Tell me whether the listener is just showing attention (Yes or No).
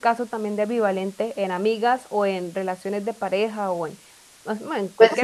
No